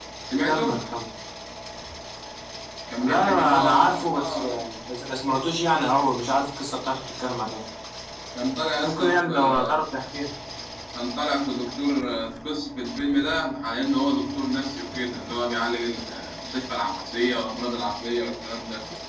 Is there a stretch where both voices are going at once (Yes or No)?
Yes